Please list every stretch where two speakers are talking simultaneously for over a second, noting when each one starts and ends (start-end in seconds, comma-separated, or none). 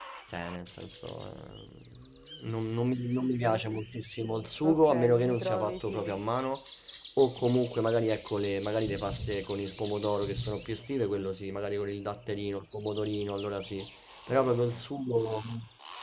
4.6-6.2